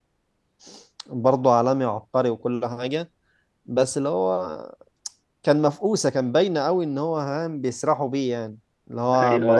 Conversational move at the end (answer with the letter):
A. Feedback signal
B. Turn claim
A